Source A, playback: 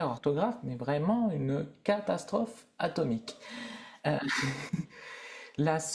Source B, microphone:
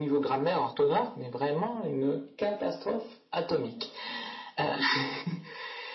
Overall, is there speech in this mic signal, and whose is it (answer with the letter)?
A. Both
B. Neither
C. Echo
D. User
C